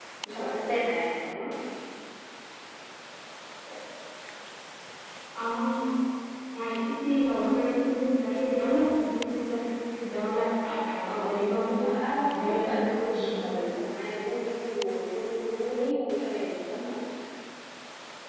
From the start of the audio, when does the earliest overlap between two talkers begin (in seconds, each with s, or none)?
11.1 s